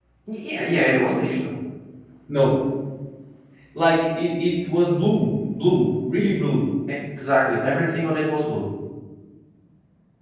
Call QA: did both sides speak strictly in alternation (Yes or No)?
Yes